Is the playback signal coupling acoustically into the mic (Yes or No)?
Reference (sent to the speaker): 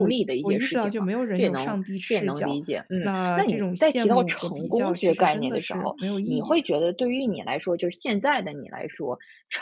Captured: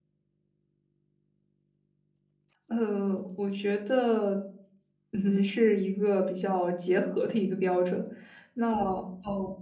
No